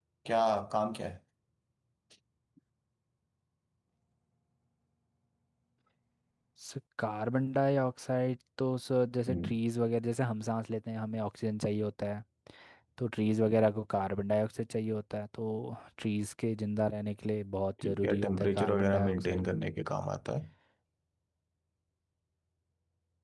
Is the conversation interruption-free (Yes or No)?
No